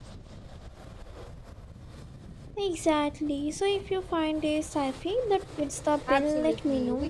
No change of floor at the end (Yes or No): No